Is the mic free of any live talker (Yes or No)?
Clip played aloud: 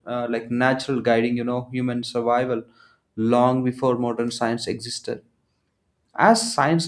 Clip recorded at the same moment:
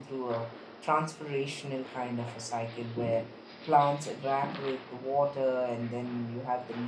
No